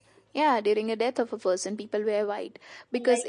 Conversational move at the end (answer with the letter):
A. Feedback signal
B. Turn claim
A